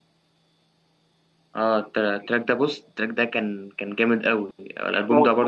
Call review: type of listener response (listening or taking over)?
taking over